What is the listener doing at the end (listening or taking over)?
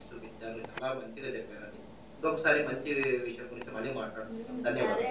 taking over